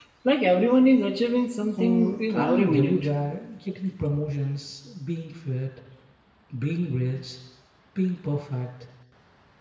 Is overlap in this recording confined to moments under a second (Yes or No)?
No